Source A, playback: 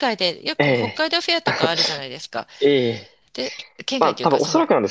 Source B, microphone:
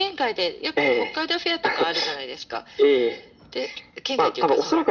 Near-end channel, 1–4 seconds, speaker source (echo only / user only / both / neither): echo only